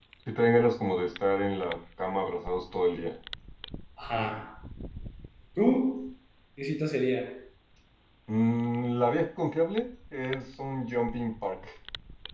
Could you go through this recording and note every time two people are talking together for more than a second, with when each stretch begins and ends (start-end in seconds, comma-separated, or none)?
none